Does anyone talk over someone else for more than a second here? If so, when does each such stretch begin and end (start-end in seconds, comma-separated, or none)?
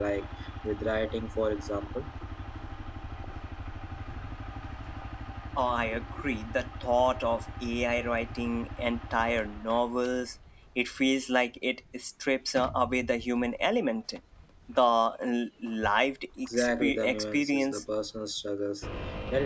16.4-17.8